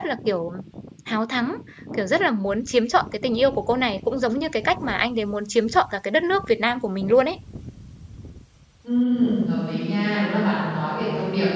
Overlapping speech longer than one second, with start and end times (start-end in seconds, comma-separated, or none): none